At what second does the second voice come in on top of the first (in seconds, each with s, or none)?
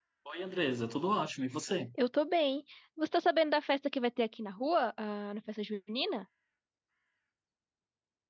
none